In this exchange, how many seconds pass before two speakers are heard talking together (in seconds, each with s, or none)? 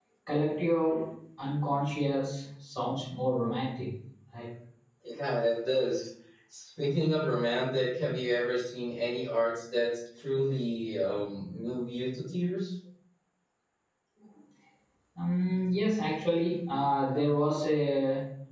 none